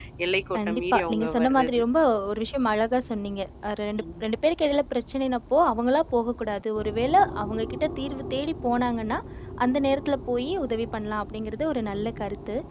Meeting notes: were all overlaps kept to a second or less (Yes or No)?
No